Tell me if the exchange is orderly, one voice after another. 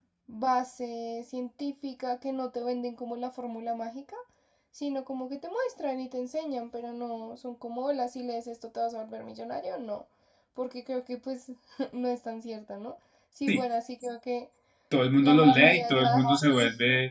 No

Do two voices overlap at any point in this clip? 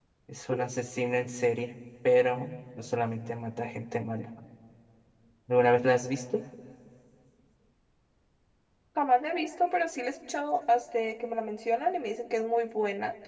No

